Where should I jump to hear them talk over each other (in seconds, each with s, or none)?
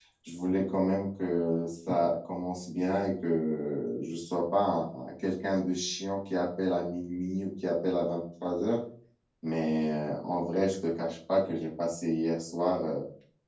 none